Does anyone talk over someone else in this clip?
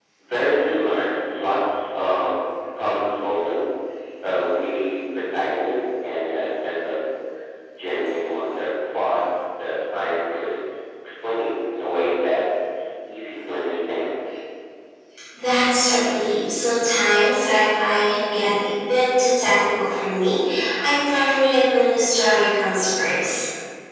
No

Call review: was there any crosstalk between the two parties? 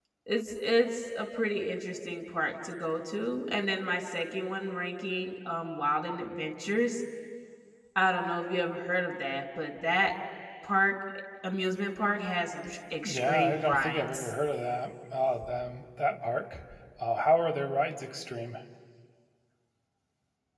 Yes, from 13.0 s

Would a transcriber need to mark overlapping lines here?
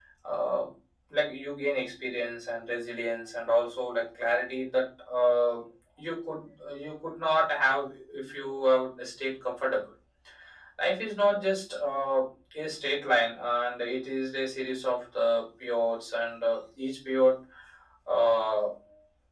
No

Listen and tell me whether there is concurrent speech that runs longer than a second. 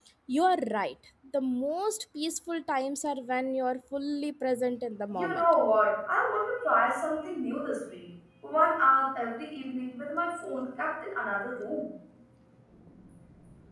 No

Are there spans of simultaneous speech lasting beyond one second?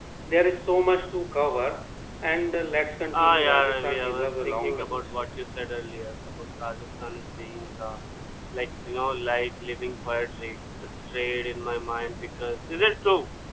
Yes, from 3.1 s

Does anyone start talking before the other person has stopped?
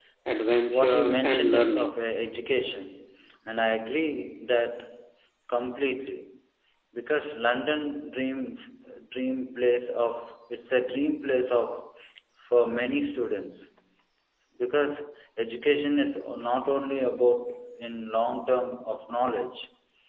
Yes, from 0.7 s

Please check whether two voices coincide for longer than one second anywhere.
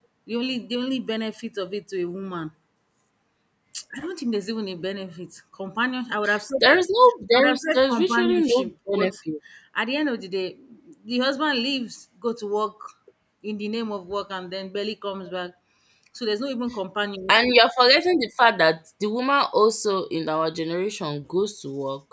Yes, from 7.3 s

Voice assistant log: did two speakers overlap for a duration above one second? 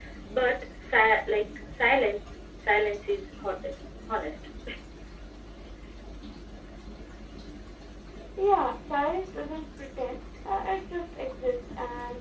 No

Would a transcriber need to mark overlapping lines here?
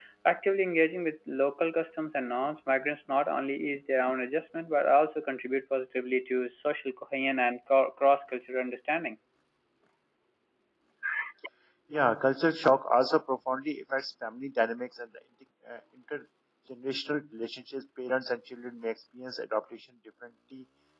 No

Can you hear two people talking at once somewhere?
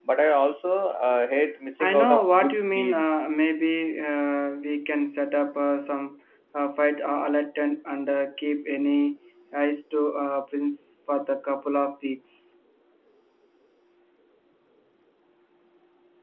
Yes, from 1.8 s

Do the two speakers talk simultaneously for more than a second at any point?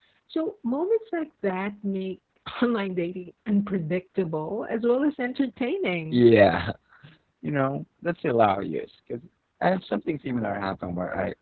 No

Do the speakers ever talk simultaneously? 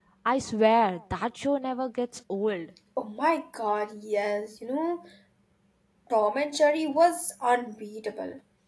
No

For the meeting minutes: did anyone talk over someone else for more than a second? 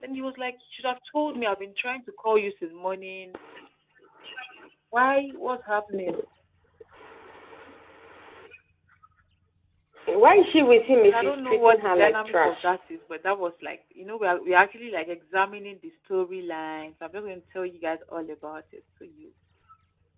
Yes, from 11.0 s

